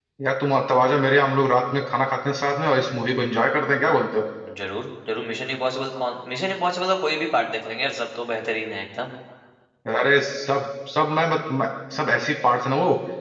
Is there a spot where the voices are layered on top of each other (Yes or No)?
No